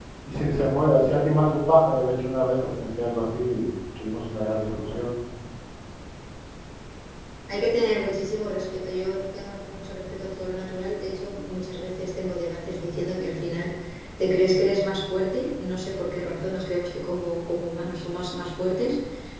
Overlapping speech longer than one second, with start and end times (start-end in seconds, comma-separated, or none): none